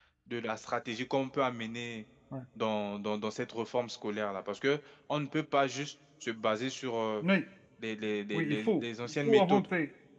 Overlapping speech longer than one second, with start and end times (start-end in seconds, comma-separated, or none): 8.3-9.7